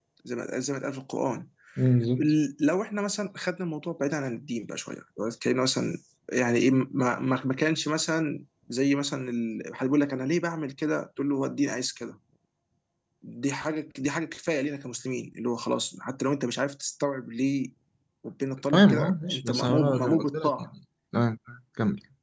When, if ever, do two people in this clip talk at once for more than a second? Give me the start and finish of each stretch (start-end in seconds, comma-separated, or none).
18.7-20.5